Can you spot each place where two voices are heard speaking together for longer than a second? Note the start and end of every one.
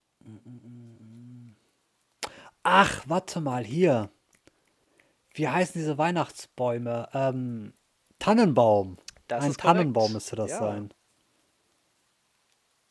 9.4-10.8

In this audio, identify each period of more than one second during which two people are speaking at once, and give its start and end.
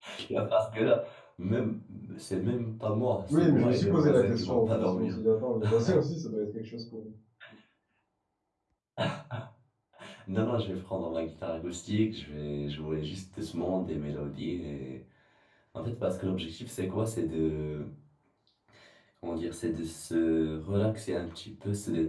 3.3-5.2

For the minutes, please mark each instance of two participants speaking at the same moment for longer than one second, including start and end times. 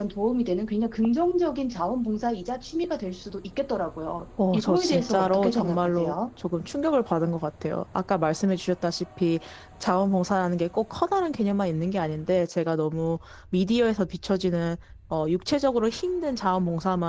4.5-6.1

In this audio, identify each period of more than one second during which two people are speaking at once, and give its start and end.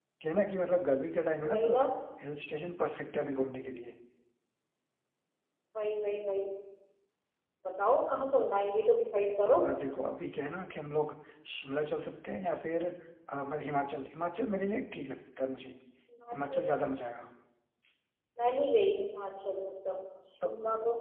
none

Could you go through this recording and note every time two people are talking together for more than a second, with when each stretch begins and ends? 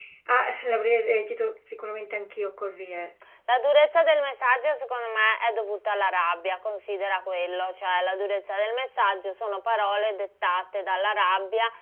none

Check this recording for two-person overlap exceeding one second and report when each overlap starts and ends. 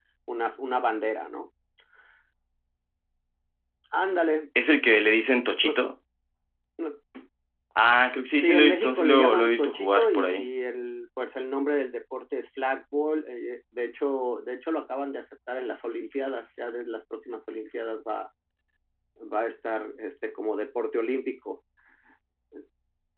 8.4-10.5

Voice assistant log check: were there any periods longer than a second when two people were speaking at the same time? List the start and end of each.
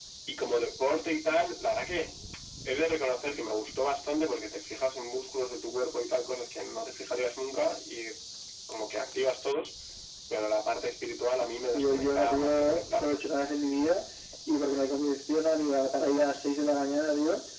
11.7-13.2

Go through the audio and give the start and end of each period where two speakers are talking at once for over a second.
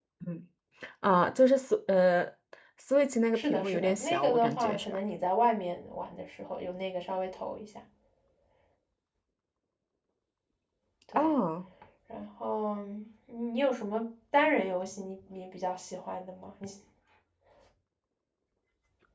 3.3-5.0

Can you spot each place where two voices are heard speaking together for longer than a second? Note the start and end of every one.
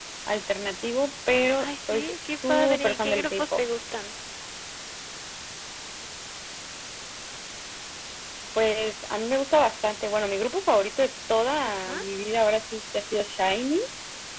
1.6-3.6

